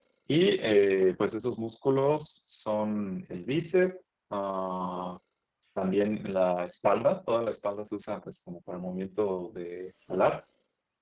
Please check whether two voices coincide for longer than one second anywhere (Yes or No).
No